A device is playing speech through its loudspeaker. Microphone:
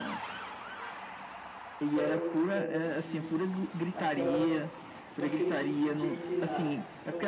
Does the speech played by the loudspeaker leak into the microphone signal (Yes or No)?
Yes